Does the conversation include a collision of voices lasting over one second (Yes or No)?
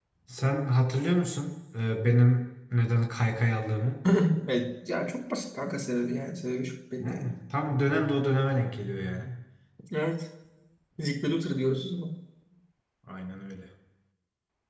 No